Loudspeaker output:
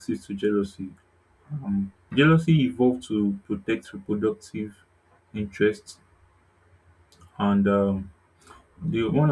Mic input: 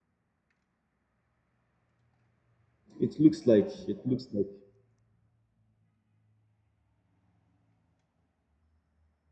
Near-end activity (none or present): present